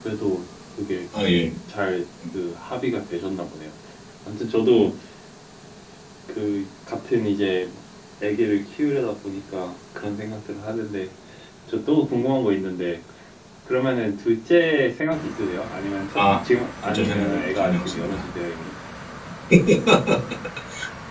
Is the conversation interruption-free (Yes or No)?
No